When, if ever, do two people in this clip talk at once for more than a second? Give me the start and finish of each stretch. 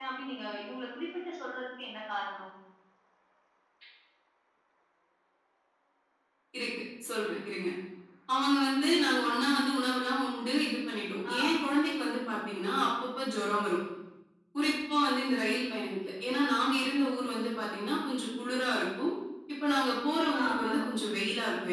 none

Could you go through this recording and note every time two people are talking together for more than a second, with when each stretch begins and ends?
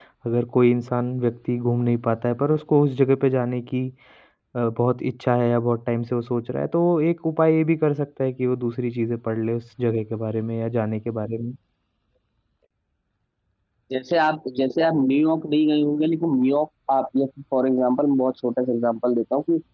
none

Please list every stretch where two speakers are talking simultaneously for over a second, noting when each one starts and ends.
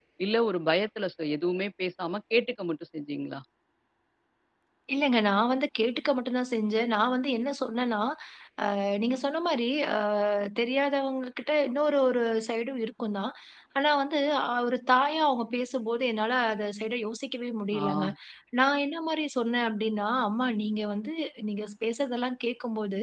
none

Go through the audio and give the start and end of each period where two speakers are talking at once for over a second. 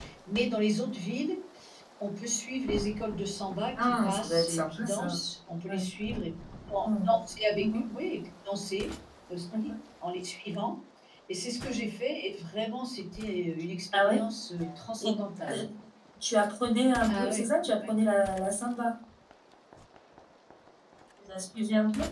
3.8-5.1

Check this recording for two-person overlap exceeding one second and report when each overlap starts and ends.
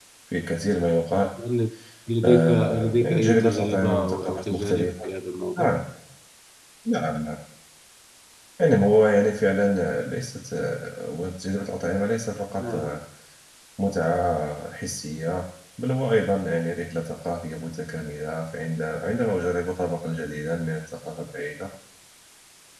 2.2-4.9

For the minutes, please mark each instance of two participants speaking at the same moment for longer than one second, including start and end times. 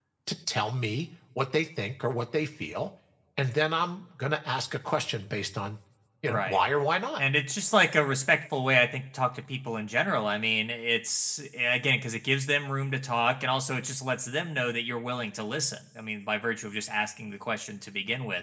none

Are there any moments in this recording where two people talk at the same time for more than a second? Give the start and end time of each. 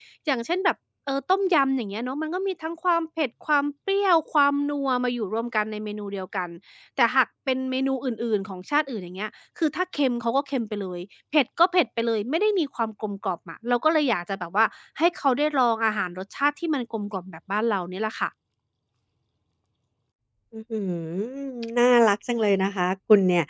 none

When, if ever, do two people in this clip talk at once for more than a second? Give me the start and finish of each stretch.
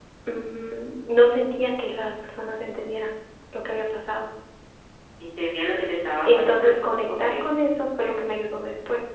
6.3-7.5

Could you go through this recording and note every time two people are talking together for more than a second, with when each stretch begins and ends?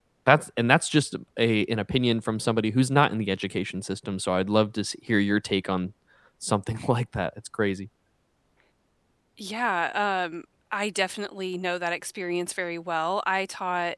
none

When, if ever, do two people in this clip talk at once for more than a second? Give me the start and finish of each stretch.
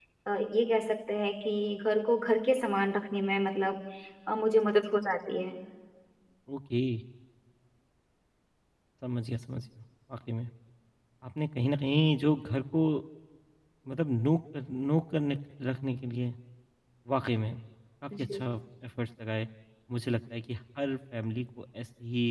none

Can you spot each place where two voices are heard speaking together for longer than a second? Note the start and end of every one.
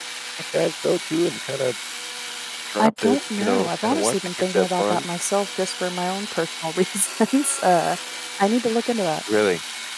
2.8-5.0

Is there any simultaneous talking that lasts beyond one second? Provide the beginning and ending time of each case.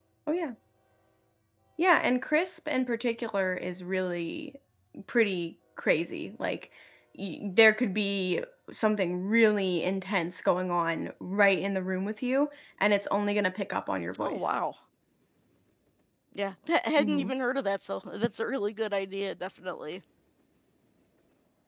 none

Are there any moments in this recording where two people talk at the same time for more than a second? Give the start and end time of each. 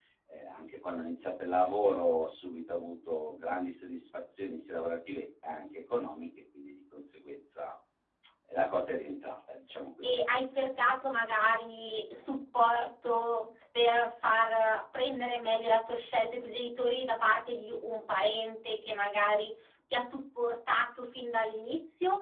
none

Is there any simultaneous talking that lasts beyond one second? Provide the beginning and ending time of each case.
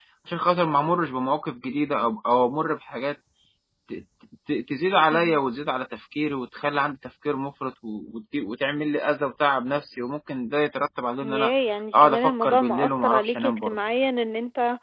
12.0-13.8

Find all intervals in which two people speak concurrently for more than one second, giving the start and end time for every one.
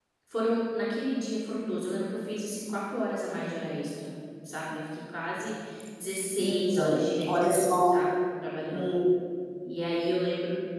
6.4-8.0

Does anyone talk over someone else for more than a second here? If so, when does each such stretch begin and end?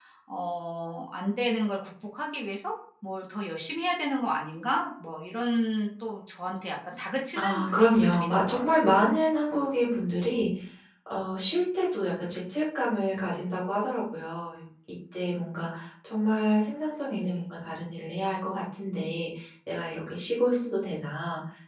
7.4-8.6

